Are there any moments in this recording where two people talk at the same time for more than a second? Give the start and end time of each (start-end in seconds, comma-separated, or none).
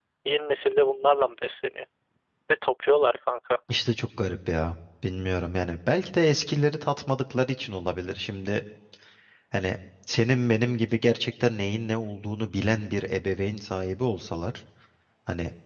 none